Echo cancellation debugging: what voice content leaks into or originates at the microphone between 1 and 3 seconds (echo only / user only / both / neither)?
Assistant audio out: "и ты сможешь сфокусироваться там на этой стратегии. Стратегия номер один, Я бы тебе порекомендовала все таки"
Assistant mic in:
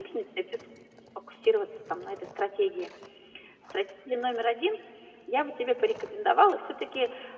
echo only